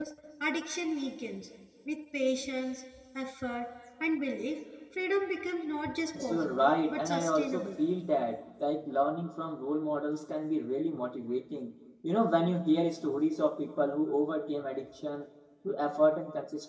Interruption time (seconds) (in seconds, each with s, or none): 6.1 s